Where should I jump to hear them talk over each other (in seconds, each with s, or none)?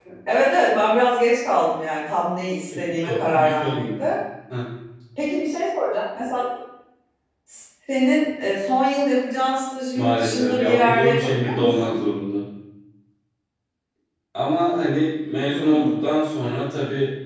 2.8 s